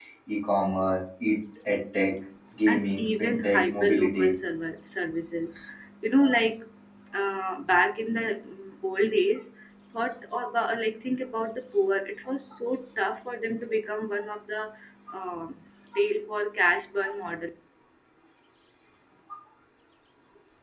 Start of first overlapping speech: 2.7 s

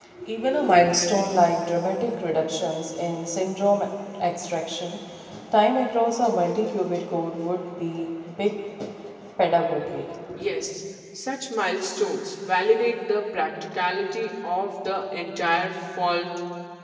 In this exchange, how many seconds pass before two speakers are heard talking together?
none

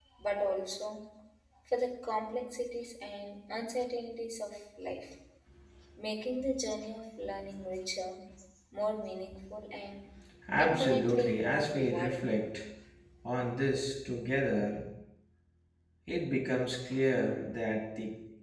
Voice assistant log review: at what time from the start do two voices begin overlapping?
10.6 s

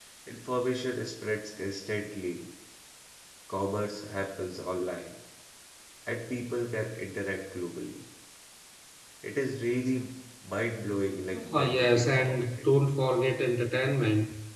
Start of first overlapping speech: 11.3 s

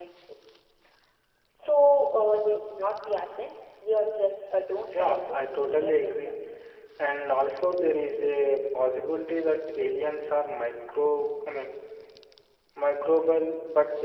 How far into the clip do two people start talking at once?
4.9 s

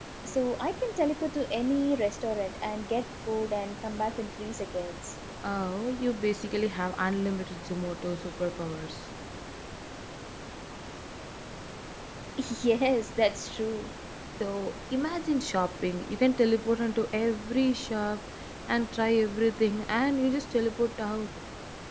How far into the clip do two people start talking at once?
none

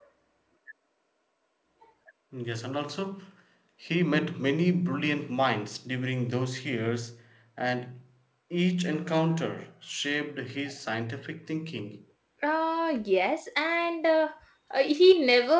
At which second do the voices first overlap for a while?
none

